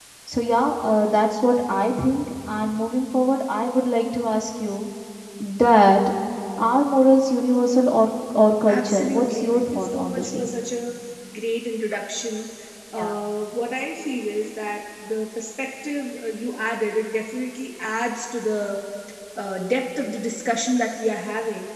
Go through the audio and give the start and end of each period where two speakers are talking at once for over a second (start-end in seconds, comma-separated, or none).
8.7-10.5